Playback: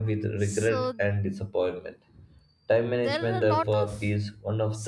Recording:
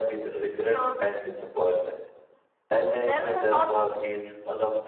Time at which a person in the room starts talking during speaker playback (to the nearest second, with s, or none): none